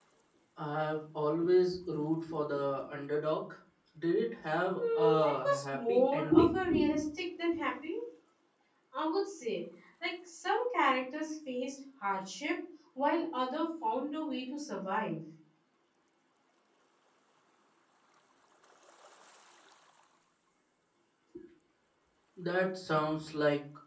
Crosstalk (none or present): present